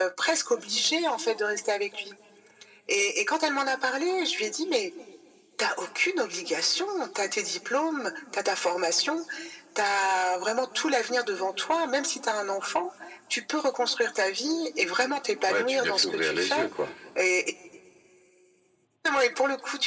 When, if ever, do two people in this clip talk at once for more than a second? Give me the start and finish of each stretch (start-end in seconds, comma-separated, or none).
15.5-16.7